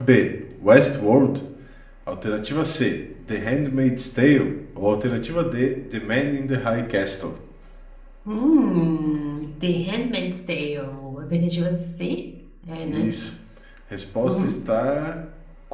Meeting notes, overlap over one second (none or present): none